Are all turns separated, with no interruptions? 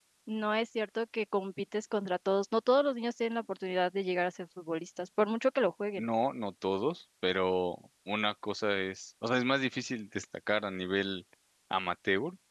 Yes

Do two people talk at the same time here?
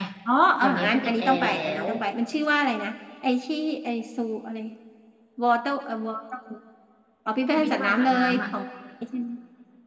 Yes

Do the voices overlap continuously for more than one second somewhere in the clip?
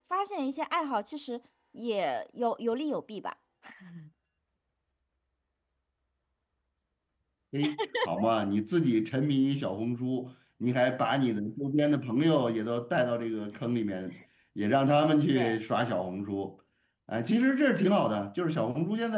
No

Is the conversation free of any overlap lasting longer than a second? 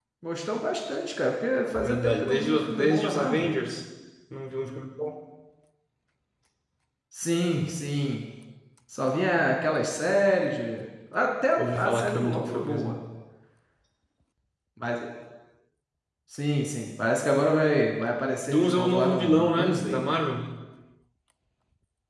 No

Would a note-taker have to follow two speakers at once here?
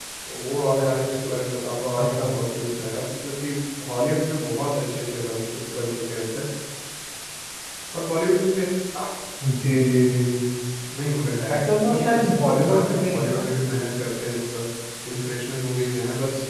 Yes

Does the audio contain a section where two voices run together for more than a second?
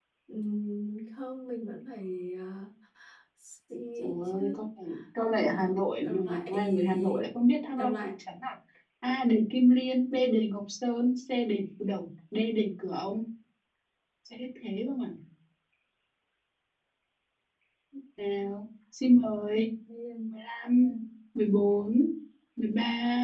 Yes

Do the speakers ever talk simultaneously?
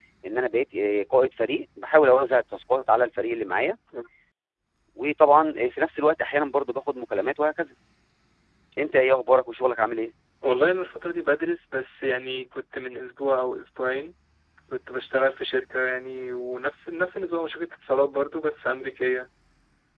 No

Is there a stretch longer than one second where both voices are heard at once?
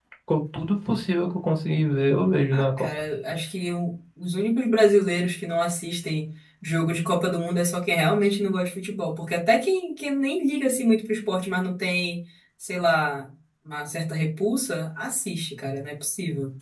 No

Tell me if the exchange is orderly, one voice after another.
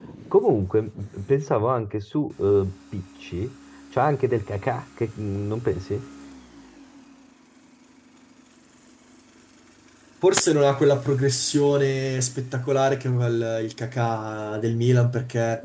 Yes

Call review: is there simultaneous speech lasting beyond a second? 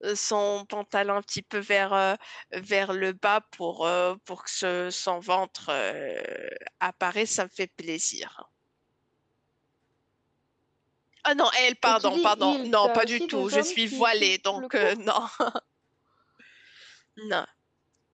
Yes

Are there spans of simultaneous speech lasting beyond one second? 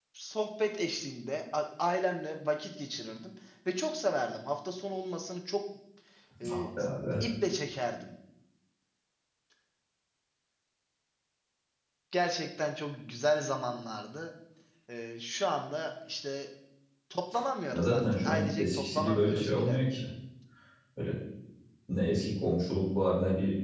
Yes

